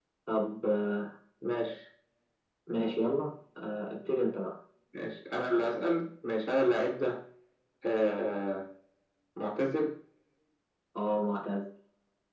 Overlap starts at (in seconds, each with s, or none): none